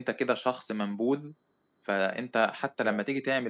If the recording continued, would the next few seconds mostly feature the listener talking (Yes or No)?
No